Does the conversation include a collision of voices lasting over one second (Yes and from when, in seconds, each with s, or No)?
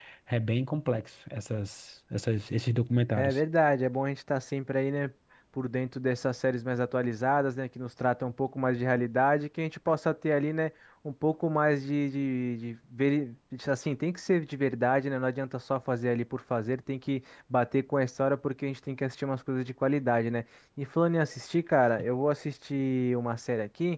No